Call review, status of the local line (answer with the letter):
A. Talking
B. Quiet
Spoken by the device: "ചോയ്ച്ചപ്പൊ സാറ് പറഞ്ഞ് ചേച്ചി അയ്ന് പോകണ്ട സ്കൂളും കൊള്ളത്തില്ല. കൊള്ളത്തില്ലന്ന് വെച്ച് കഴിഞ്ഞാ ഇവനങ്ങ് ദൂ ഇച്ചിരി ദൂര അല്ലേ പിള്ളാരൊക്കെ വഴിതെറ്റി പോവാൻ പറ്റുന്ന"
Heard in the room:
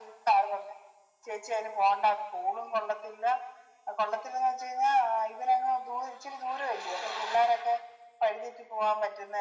B